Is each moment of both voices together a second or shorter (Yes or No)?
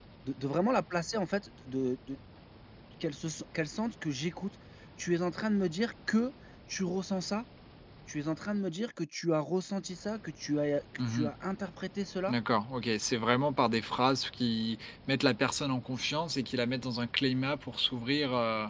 Yes